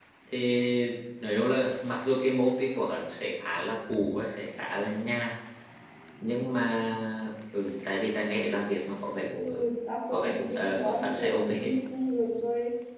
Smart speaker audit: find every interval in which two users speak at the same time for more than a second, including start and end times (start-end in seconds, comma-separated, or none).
10.1-11.5